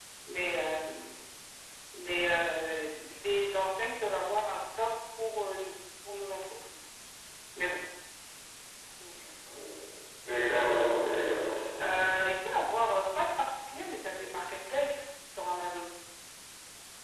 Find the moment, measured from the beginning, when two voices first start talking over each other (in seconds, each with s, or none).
none